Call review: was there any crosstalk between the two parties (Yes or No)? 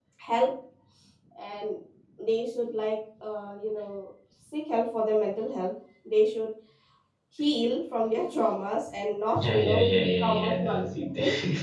Yes